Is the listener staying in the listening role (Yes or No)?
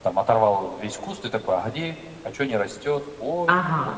No